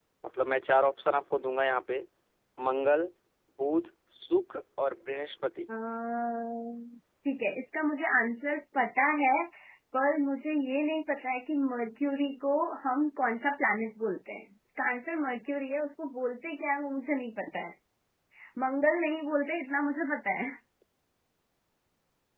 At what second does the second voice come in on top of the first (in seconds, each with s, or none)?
none